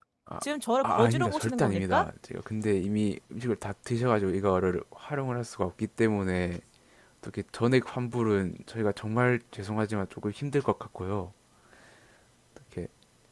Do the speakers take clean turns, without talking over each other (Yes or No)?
No